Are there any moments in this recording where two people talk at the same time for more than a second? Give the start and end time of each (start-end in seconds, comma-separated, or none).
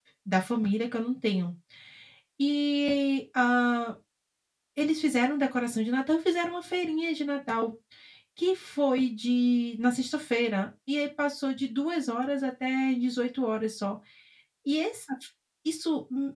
none